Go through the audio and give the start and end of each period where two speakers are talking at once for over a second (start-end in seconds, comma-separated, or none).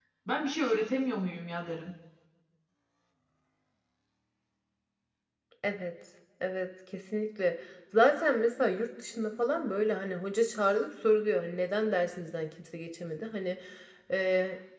none